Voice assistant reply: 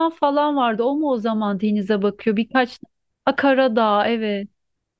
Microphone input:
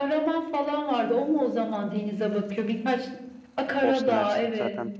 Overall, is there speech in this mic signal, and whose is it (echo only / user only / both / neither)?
both